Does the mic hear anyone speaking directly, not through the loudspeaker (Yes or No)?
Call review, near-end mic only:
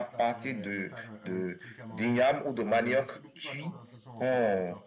Yes